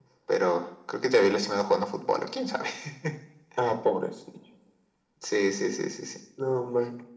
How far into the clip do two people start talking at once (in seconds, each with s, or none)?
none